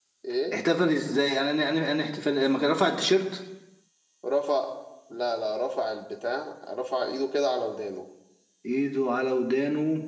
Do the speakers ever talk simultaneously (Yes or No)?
No